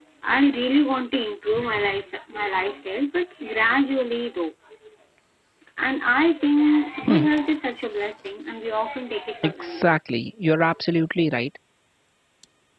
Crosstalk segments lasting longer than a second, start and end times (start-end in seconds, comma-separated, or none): none